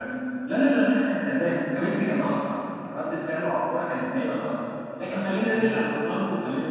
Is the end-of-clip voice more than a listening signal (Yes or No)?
No